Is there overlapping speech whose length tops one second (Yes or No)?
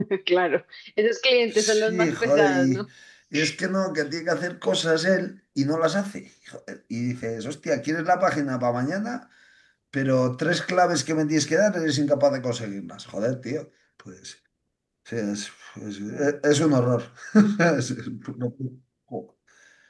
Yes